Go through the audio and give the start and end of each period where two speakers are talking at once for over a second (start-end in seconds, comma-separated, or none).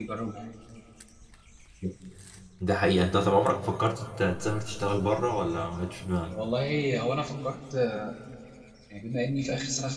none